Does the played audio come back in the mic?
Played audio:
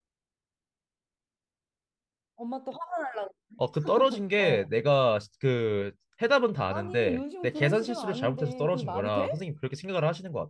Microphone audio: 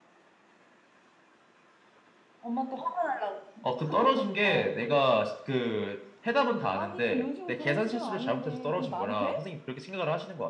Yes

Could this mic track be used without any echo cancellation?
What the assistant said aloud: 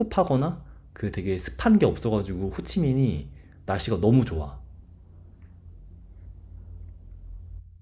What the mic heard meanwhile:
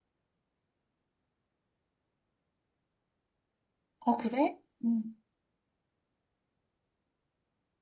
Yes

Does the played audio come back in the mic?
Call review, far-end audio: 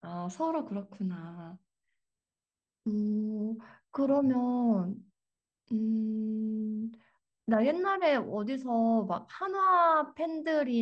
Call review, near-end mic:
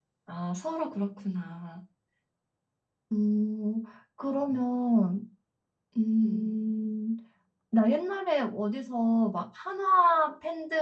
Yes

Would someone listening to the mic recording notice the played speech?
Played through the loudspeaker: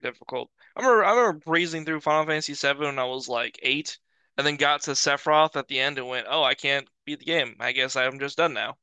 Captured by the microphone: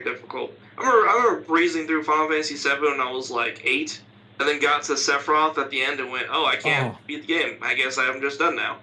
Yes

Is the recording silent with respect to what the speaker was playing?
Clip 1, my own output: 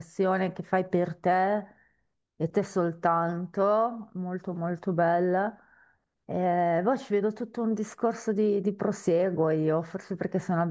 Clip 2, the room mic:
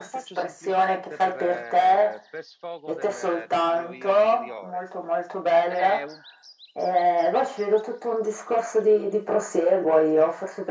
No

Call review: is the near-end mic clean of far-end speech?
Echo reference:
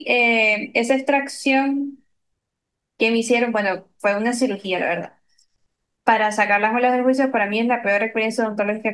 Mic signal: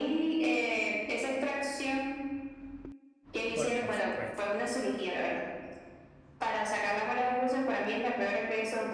No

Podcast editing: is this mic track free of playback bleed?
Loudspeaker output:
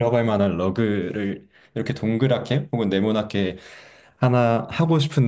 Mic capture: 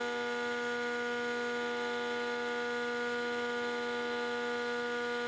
Yes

